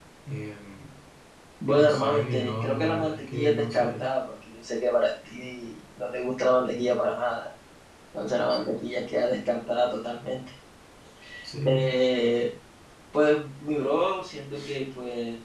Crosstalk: present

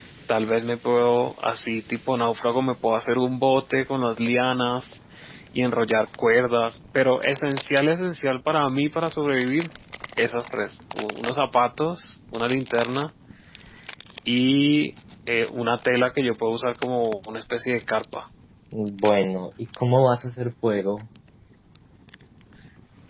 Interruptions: none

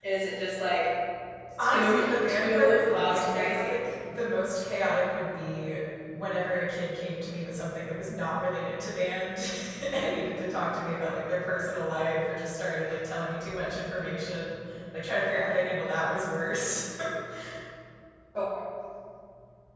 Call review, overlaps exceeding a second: present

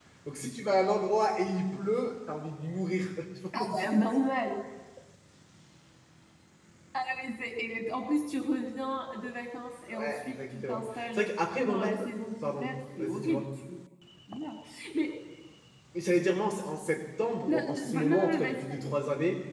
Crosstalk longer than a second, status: present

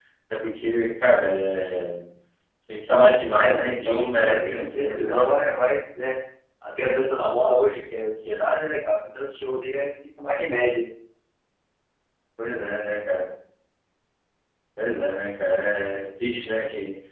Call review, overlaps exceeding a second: present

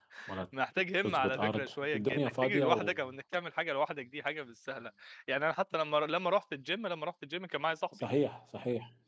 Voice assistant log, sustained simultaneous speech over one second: present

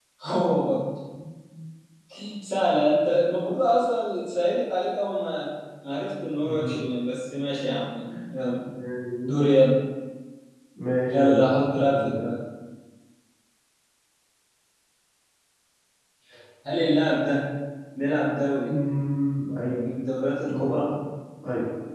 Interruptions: present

